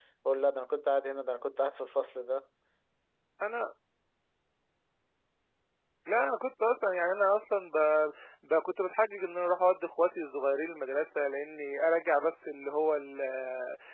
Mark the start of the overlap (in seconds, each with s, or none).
none